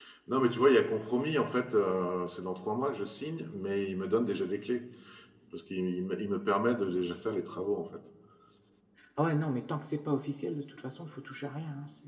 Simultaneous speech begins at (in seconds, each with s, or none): none